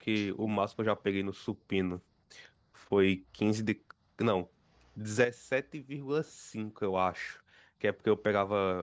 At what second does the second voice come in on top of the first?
none

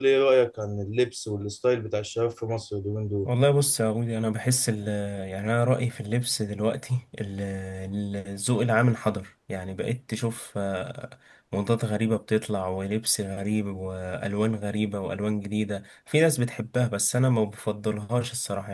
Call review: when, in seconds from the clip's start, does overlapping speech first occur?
none

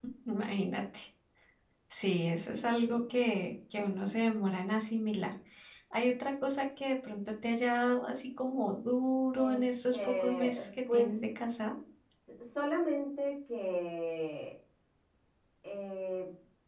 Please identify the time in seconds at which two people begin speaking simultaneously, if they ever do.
9 s

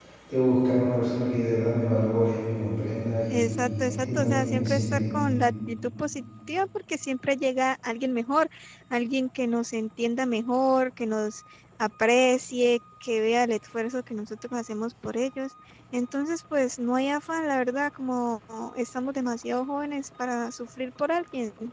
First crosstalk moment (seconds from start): 3 s

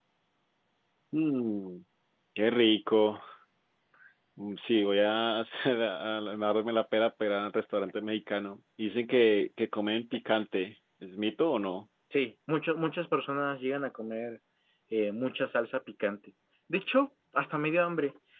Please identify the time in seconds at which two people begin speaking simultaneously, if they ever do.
none

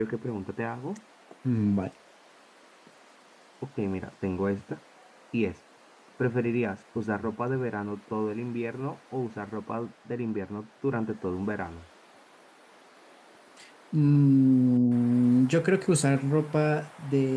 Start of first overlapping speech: none

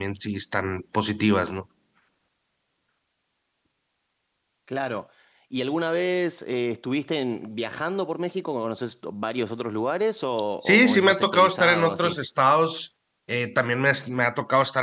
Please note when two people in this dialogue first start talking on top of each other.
11 s

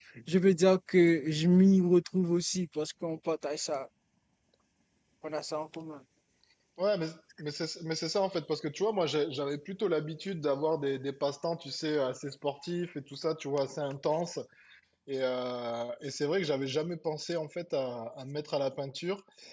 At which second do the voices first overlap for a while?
none

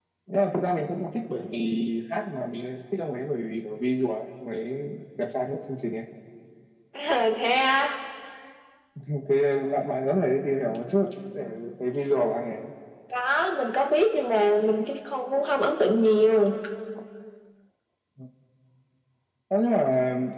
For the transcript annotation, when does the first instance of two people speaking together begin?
none

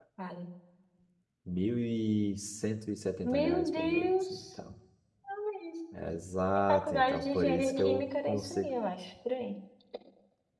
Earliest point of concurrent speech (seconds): 3 s

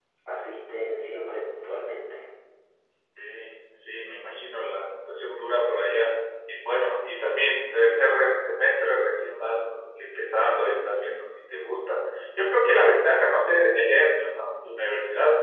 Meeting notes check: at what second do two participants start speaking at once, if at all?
none

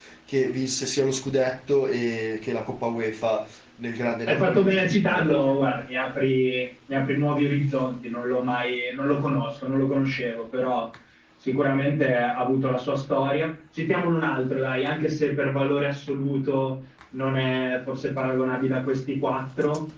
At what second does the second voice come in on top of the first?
4 s

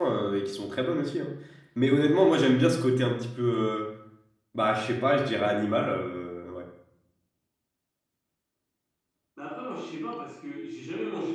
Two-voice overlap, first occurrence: none

